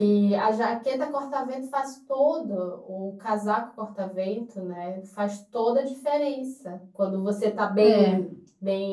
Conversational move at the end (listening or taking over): listening